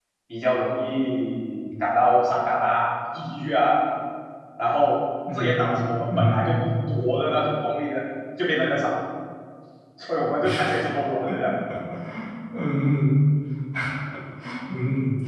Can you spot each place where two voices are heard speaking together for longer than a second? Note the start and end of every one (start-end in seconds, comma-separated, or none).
5.3-6.6